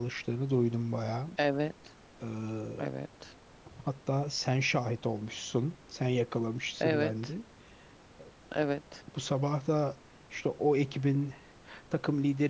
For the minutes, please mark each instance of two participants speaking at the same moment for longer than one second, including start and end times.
none

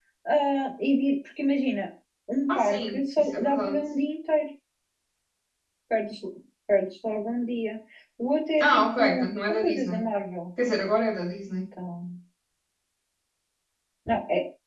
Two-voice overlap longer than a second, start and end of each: 2.5-3.8, 8.6-10.1

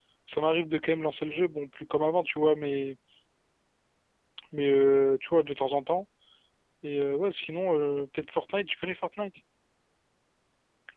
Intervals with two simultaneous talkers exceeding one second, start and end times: none

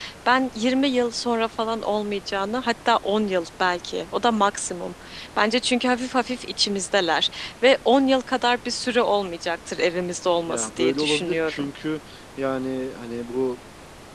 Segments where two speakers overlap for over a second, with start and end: 10.5-11.7

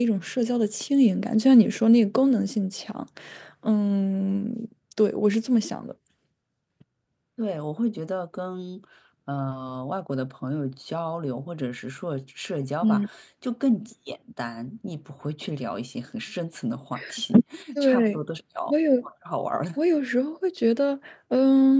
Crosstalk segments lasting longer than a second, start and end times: none

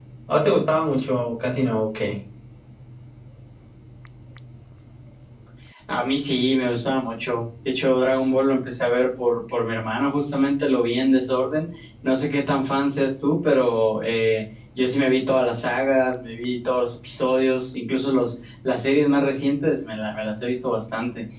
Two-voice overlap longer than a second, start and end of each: none

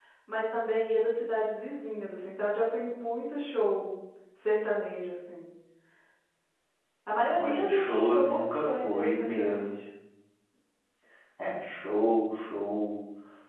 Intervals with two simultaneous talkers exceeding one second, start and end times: 7.3-9.8

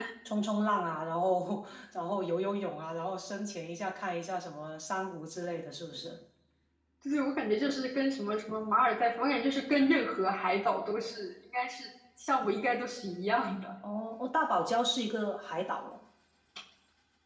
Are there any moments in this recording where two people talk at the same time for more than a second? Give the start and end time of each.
none

